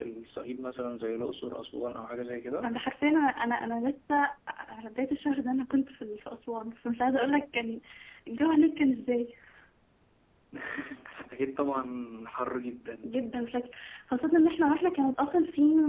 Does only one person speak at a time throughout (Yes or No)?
Yes